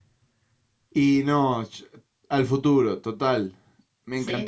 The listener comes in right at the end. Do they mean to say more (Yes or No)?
No